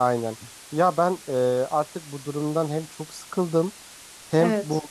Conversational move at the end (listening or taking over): listening